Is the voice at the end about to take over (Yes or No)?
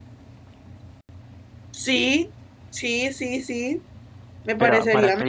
Yes